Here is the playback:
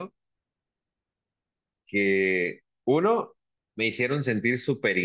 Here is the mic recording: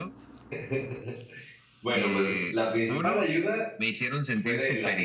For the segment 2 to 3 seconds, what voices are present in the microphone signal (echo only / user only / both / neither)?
both